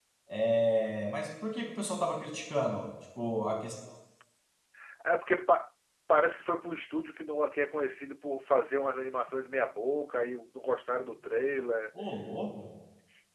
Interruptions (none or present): none